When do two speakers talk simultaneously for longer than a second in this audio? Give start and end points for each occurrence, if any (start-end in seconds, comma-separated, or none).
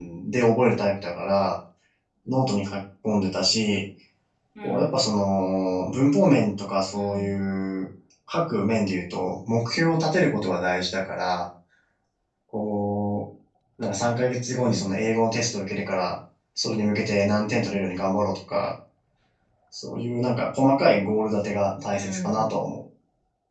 none